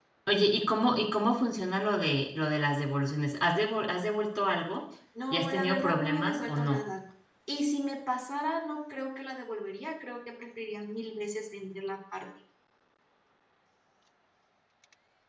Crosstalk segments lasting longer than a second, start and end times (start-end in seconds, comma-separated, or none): 5.3-6.8